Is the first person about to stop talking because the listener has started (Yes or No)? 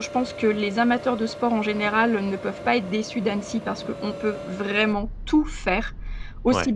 No